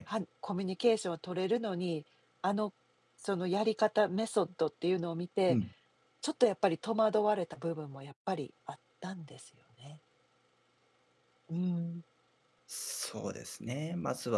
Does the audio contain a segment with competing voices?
No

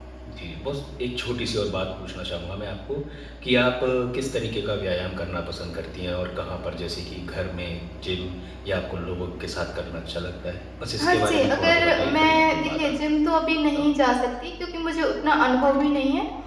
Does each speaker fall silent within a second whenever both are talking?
No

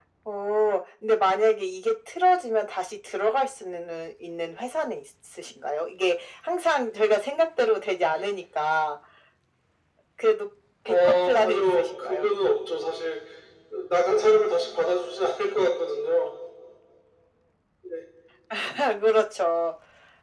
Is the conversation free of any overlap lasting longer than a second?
No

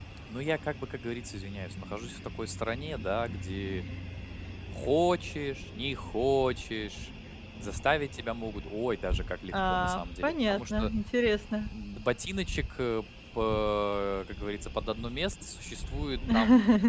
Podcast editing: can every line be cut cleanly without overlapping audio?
No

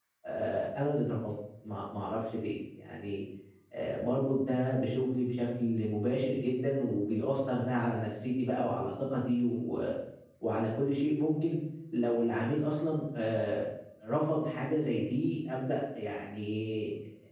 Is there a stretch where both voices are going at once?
No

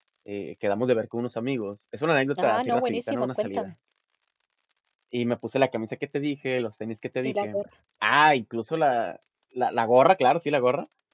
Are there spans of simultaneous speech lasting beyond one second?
Yes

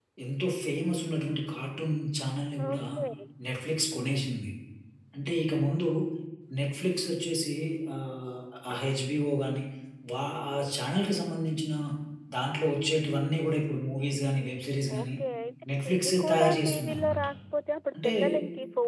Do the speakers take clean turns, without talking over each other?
No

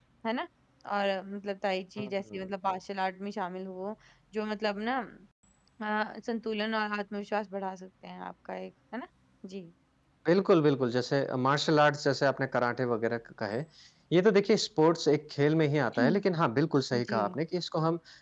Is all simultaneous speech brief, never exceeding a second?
Yes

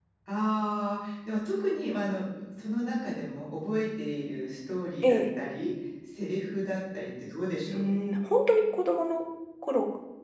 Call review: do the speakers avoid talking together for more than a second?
Yes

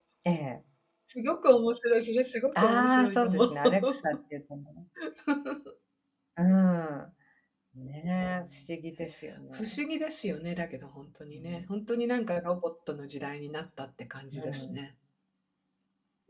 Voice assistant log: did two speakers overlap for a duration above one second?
Yes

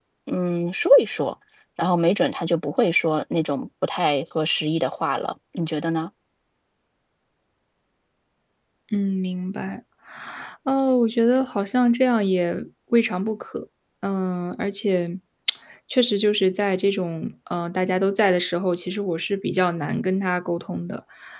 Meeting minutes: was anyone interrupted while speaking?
No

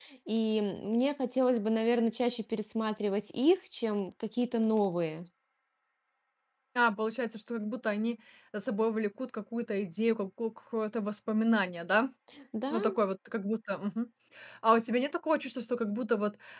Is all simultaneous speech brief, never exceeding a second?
Yes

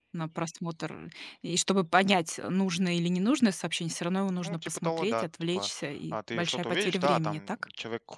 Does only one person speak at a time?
No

